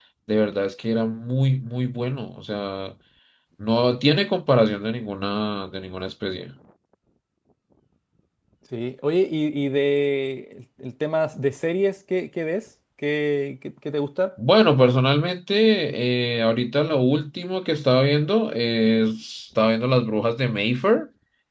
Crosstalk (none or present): none